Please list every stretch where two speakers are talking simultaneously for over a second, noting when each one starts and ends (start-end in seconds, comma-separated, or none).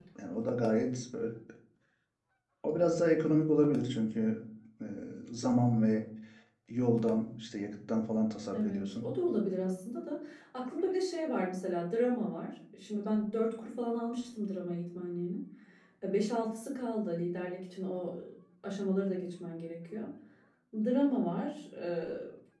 none